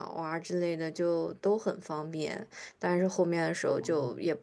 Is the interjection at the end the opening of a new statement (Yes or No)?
No